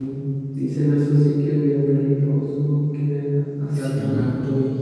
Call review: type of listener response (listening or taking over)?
listening